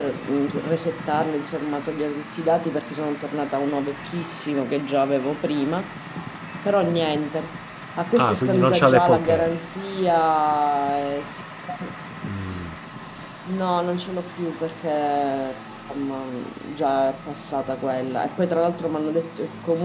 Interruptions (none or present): present